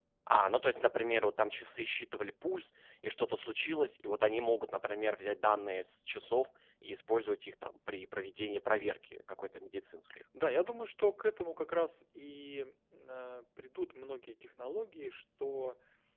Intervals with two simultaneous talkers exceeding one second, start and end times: none

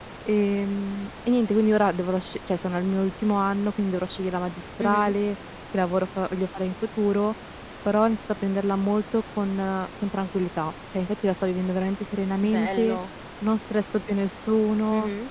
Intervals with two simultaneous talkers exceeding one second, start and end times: none

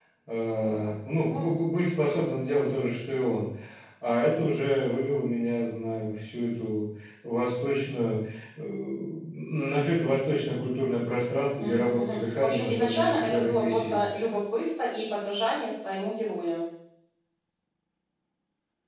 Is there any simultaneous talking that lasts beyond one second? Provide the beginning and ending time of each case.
11.6-14.0

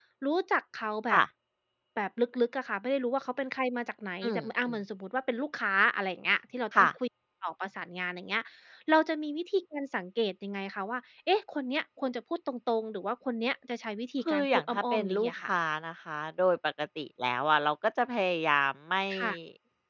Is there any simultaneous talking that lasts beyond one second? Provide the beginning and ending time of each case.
14.2-15.5

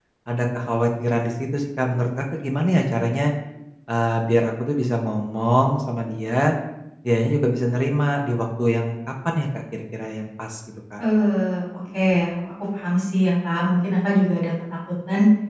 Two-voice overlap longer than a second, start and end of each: none

